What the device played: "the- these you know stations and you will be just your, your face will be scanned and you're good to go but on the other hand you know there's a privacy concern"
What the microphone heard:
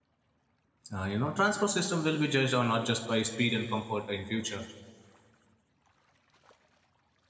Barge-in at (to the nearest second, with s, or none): 1 s